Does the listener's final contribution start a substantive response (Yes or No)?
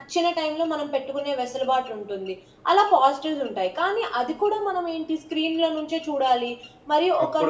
No